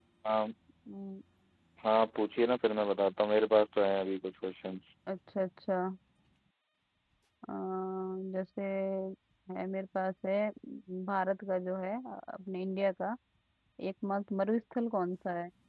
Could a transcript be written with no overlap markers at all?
Yes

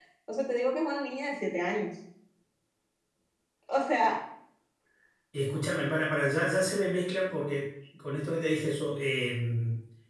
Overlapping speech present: No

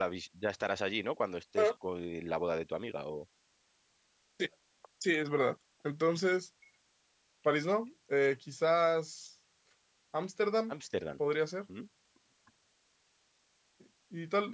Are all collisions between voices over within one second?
Yes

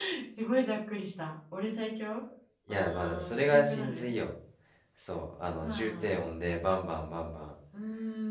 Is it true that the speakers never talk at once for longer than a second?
No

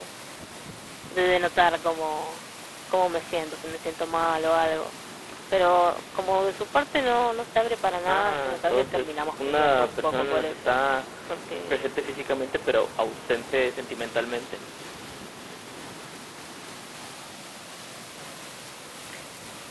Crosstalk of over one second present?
Yes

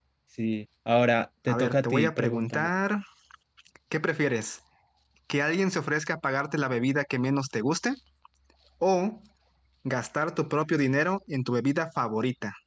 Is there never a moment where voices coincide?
No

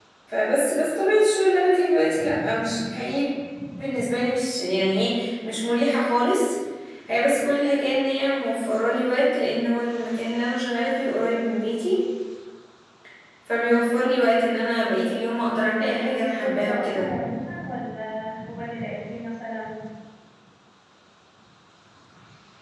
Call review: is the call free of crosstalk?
No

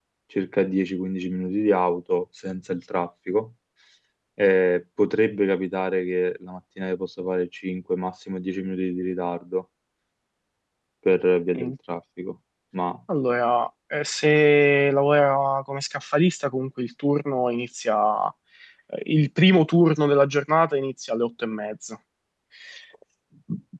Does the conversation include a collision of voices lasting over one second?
No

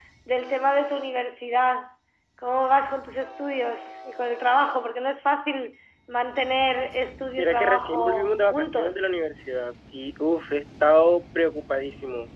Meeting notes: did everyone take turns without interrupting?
No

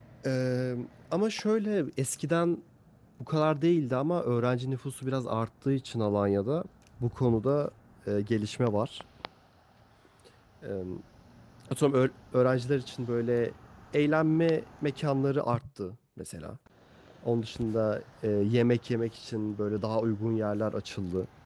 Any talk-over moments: No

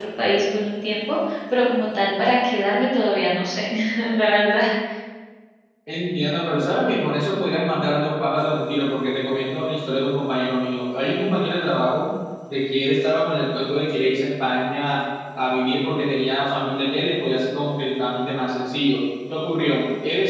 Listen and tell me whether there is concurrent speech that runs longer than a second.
No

